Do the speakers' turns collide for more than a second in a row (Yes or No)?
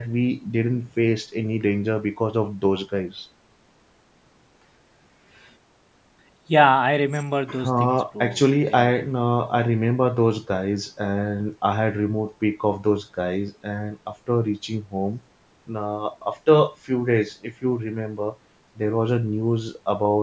Yes